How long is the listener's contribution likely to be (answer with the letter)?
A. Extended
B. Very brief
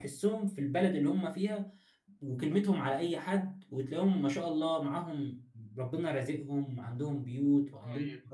A